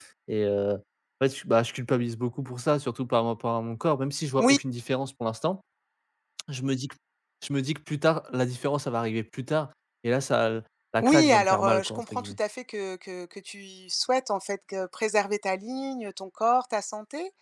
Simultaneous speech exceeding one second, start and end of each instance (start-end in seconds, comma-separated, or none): 11.0-12.4